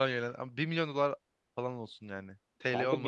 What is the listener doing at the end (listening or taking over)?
taking over